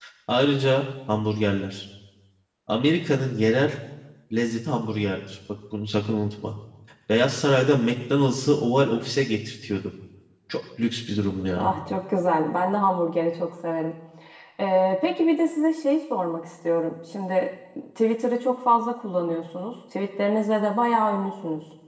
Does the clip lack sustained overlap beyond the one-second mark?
Yes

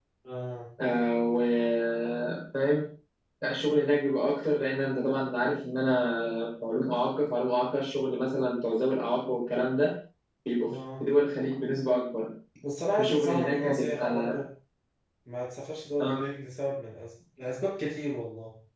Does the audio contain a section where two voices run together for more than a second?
Yes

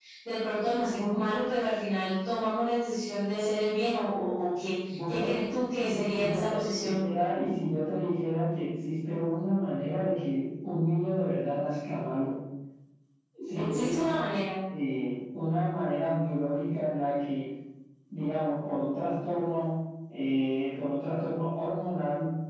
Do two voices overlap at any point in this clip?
Yes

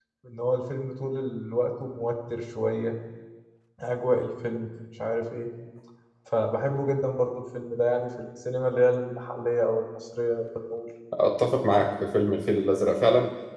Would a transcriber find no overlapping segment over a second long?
Yes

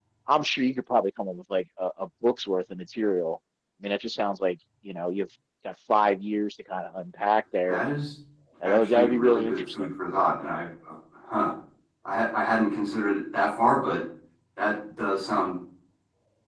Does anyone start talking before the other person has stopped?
Yes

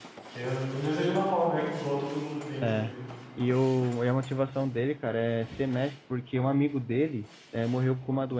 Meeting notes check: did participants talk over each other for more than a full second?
No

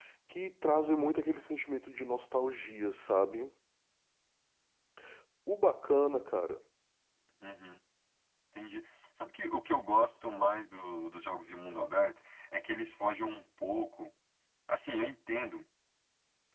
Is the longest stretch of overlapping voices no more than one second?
Yes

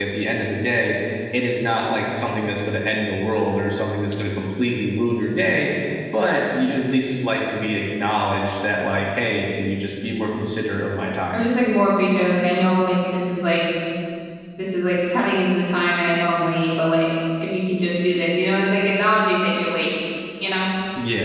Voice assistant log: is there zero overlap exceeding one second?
Yes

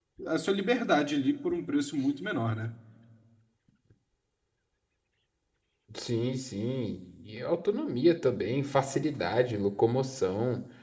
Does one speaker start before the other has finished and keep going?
No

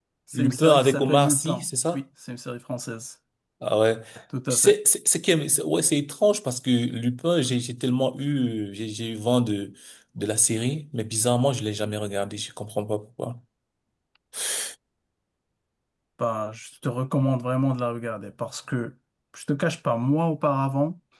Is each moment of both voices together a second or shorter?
No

